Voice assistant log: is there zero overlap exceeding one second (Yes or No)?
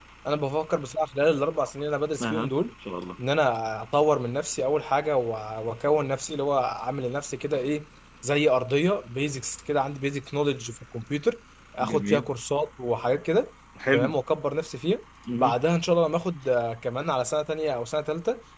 Yes